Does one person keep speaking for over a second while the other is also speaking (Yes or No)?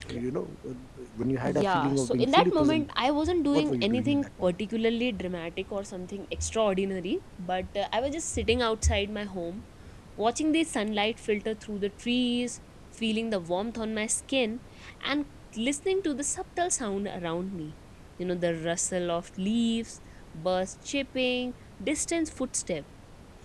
Yes